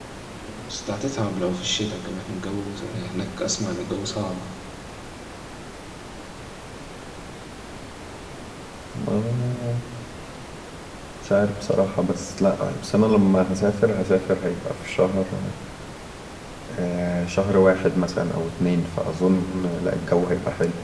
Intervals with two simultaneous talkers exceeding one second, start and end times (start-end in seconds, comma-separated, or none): none